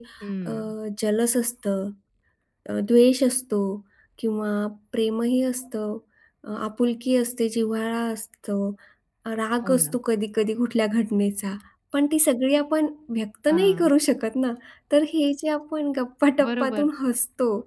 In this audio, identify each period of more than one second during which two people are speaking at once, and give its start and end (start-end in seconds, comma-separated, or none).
none